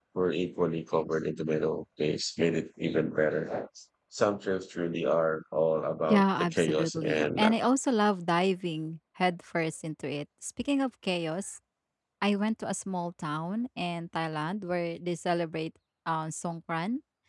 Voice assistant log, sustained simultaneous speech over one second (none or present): present